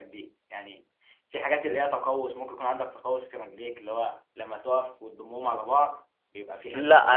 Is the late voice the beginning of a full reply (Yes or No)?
Yes